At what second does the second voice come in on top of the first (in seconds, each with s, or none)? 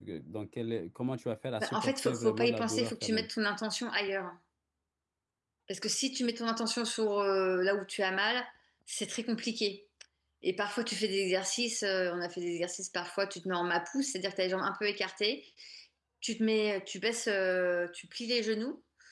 1.6 s